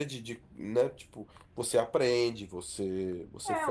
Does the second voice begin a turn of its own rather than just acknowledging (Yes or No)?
Yes